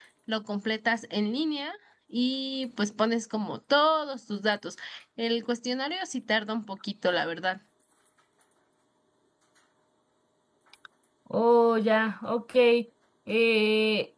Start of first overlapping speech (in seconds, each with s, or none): none